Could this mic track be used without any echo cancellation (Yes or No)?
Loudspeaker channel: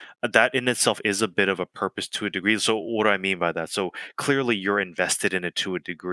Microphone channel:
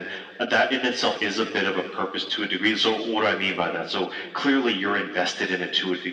No